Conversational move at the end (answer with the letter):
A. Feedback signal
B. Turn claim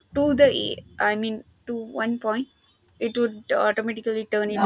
B